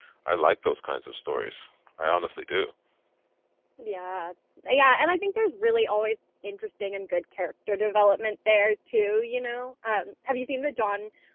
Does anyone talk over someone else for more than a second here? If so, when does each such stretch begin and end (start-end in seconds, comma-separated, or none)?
none